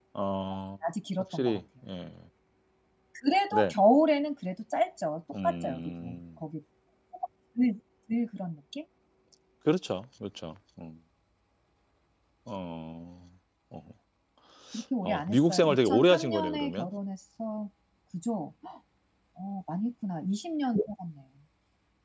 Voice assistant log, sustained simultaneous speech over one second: present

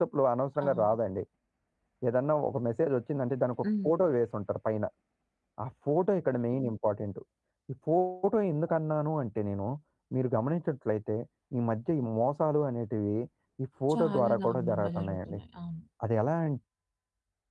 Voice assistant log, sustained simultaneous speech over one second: present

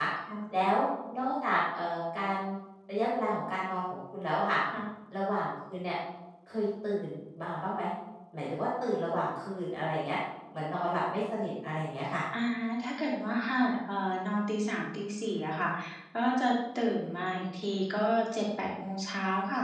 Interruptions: none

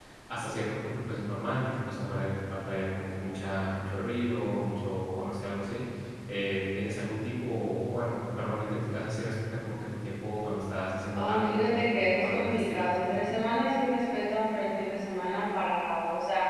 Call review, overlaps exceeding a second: present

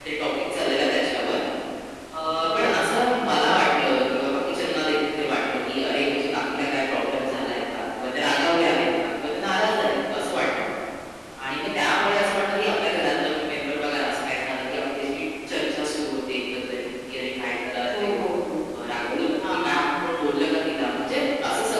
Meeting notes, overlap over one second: none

